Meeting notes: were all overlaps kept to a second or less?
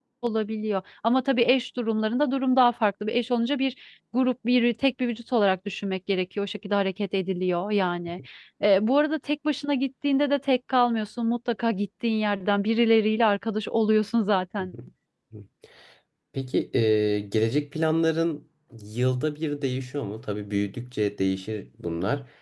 Yes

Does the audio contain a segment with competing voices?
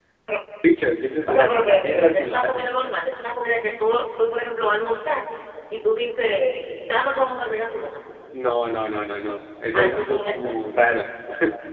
Yes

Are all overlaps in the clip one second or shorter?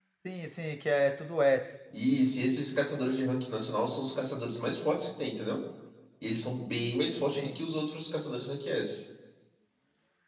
Yes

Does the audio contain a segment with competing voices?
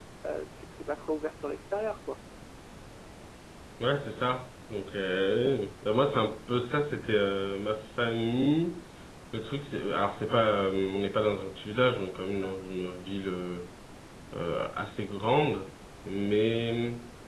No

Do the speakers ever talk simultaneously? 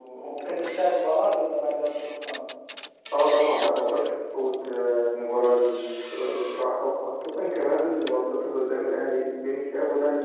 No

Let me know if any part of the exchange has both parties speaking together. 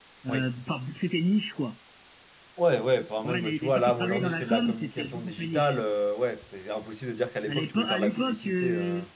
Yes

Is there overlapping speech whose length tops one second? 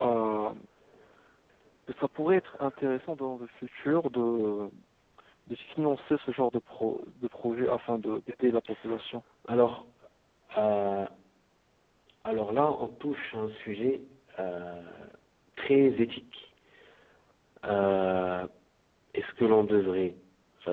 No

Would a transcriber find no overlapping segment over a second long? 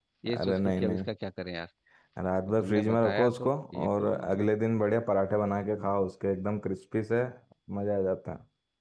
No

